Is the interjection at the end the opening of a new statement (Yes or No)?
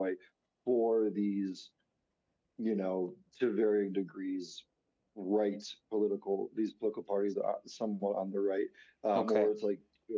No